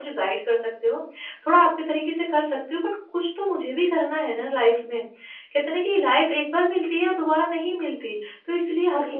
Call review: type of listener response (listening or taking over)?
listening